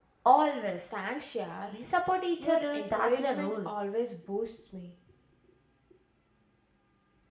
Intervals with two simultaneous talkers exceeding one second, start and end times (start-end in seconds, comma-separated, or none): 2.4-3.7